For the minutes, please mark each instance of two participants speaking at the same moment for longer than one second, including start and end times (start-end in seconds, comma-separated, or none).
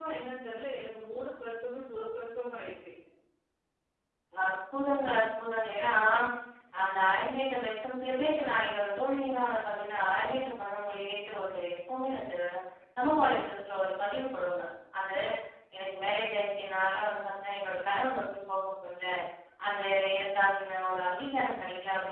none